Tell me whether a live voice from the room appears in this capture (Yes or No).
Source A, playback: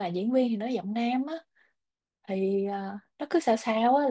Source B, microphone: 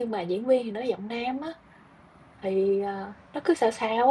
No